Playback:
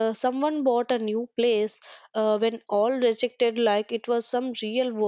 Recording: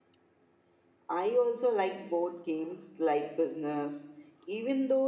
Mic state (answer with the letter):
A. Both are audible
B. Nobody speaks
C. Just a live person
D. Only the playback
C